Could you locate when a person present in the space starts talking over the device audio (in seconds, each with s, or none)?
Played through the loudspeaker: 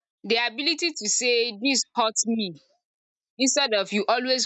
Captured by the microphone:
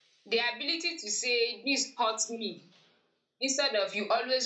none